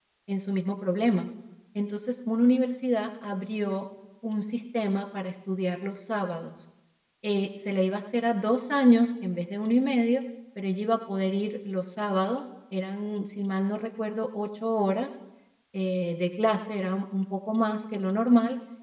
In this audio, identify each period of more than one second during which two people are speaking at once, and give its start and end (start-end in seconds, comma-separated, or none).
none